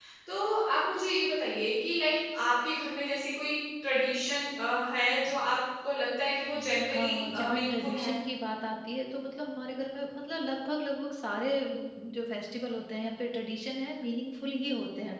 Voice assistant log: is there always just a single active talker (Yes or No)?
No